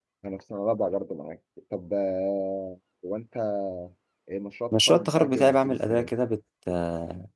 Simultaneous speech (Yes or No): Yes